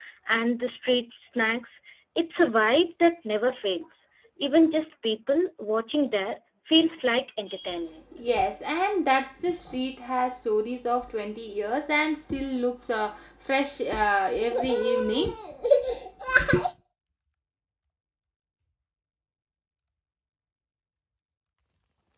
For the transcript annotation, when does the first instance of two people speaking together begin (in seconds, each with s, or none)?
none